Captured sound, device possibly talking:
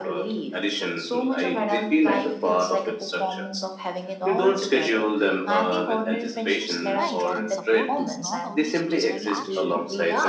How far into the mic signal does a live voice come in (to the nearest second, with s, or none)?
7 s